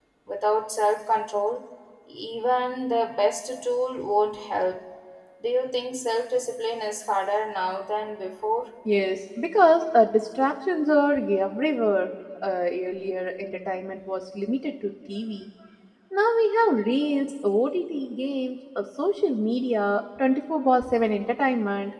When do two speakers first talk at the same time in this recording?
none

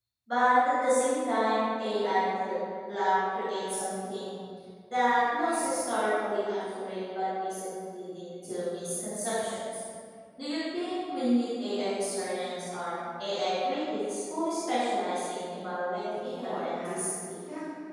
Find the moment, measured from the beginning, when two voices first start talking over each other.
16 s

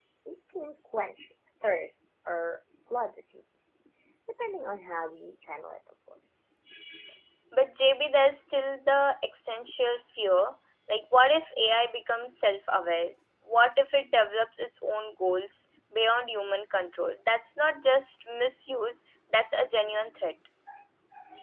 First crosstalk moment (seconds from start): none

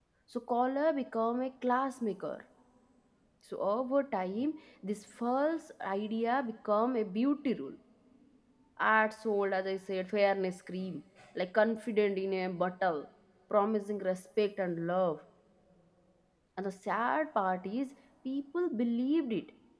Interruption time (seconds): none

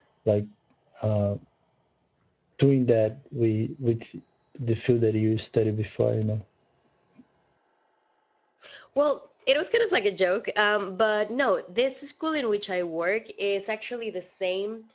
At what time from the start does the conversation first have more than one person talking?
none

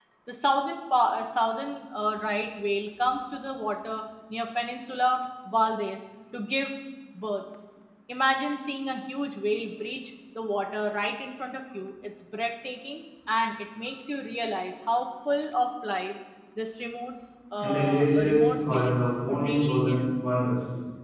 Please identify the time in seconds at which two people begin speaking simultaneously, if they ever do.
18 s

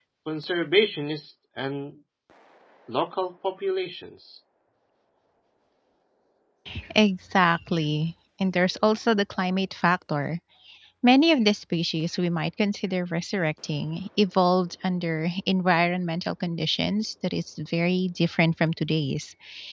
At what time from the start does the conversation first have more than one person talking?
none

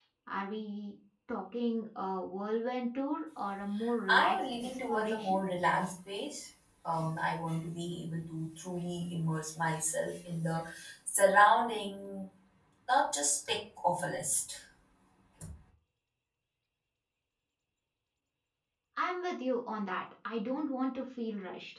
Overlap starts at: 4 s

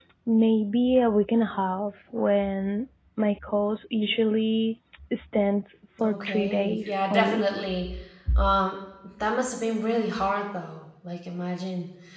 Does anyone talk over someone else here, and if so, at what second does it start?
6 s

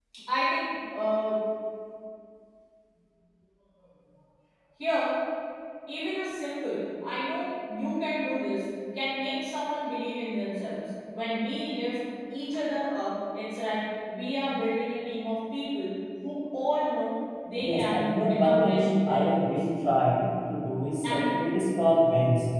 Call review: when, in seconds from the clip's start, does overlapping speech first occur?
18 s

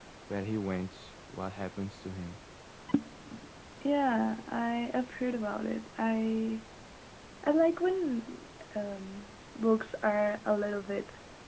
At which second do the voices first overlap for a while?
none

